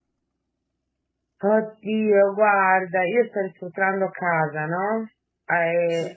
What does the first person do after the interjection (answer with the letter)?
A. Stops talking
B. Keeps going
B